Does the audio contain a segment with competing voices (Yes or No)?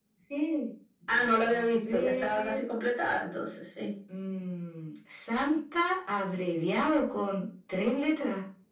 Yes